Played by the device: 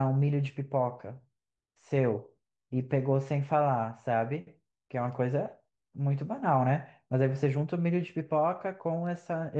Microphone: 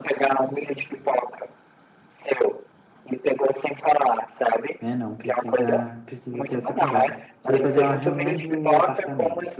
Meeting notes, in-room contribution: present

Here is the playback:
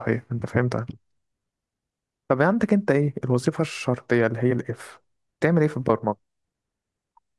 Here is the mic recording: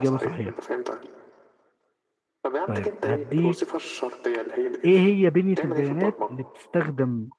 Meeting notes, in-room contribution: present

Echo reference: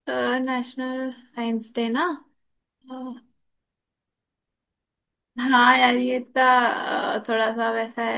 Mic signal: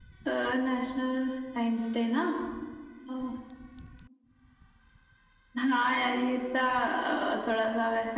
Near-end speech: none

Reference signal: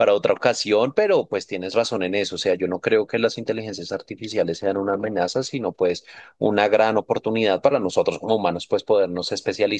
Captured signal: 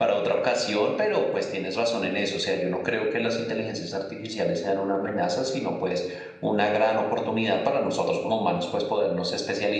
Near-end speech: none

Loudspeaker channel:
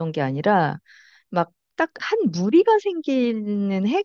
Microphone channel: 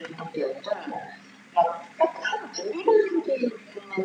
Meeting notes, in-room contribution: none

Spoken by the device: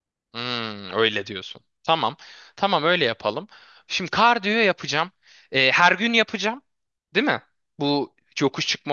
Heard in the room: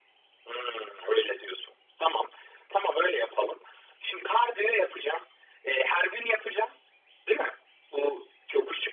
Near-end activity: none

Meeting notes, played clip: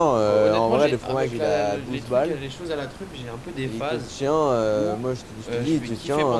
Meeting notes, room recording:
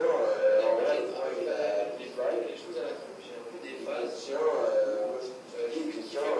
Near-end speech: none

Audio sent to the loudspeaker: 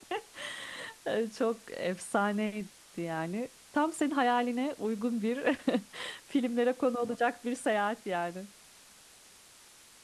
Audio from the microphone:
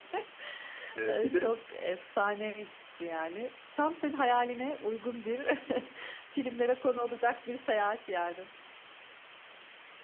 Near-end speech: present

